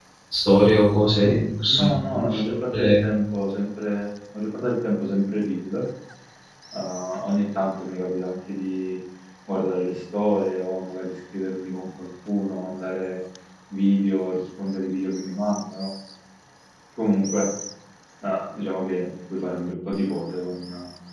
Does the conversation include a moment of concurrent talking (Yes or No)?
Yes